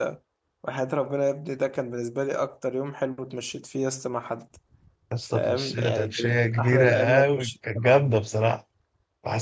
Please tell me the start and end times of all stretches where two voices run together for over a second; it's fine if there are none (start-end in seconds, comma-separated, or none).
5.2-8.0